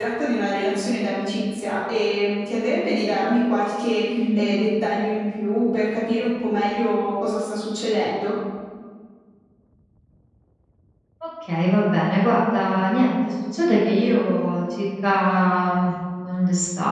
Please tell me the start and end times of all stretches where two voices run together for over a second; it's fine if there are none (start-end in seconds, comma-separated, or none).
none